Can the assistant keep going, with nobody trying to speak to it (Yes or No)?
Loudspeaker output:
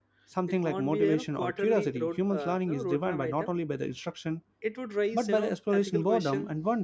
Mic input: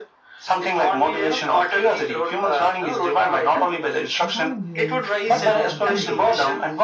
No